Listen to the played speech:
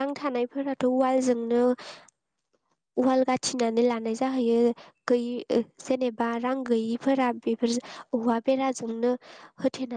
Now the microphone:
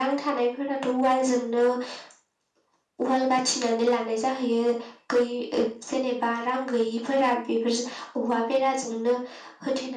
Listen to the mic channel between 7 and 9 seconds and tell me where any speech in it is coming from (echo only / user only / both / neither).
echo only